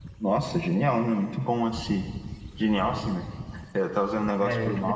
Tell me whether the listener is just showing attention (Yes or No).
Yes